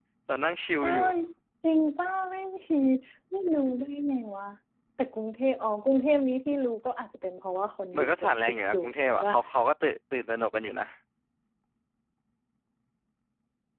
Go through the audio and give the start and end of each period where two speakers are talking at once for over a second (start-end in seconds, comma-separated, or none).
8.0-9.3